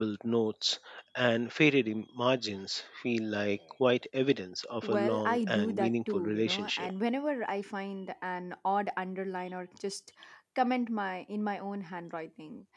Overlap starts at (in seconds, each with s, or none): 4.8 s